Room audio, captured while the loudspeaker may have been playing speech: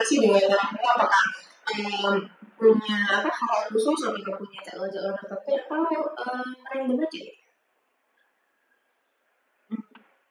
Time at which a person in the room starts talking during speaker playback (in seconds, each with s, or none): none